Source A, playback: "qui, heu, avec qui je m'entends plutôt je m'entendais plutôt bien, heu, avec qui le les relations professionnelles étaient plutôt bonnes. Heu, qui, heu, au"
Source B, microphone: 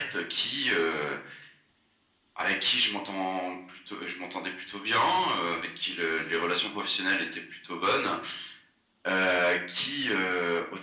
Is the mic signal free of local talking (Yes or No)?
Yes